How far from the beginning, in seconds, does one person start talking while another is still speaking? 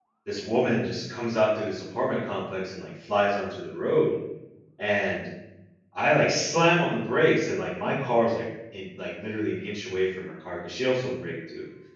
none

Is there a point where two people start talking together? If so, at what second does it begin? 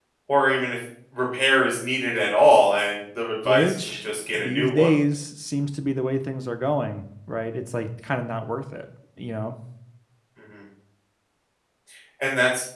3.4 s

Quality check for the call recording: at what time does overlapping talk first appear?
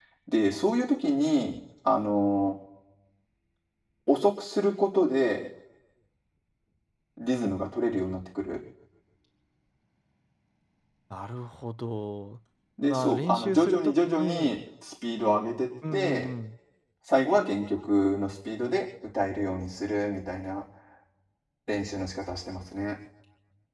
12.8 s

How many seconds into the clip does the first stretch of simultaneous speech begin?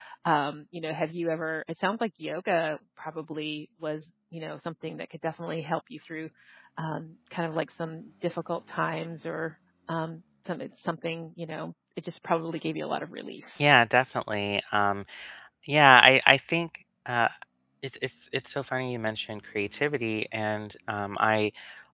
none

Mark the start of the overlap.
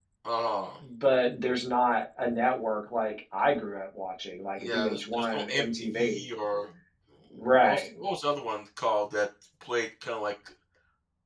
4.6 s

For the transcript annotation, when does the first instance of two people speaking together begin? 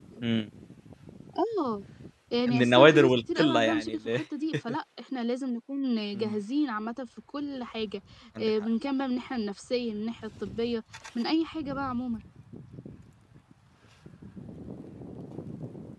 2.5 s

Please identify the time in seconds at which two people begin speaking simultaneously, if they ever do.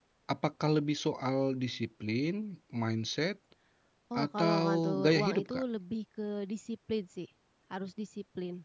4.2 s

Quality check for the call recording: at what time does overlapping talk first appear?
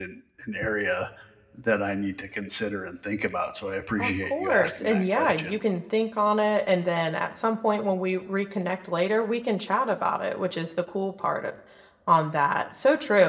4.0 s

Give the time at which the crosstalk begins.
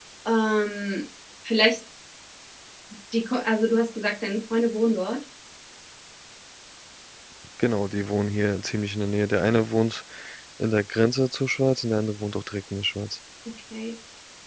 none

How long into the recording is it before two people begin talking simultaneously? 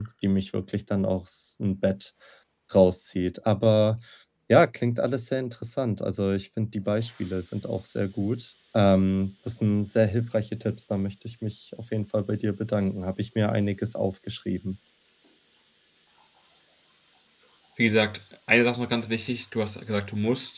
none

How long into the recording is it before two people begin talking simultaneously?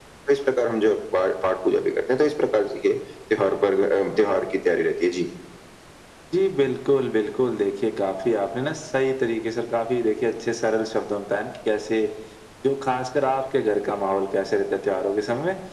none

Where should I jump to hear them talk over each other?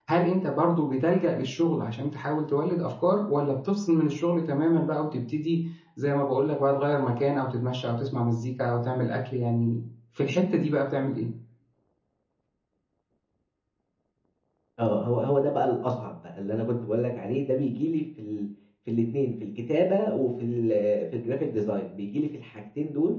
none

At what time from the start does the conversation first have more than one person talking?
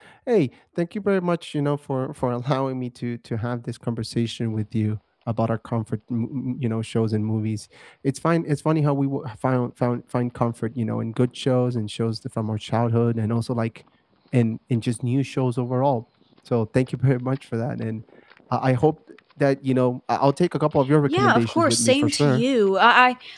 21.1 s

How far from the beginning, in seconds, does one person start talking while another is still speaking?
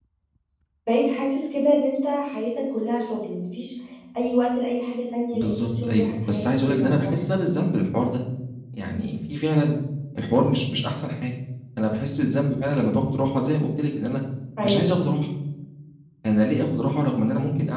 5.3 s

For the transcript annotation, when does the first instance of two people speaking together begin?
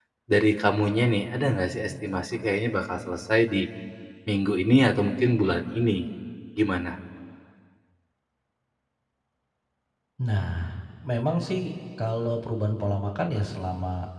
none

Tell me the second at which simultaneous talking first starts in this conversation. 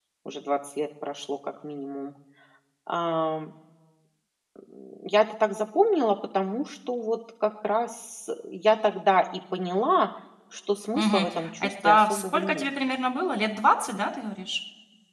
10.9 s

